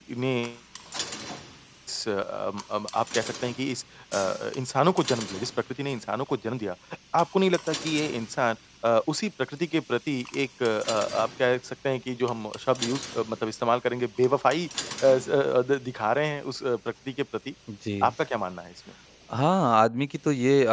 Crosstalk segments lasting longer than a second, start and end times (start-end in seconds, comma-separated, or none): none